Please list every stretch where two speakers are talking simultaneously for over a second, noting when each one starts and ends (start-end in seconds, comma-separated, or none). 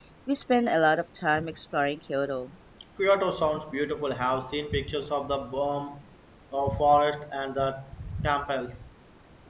none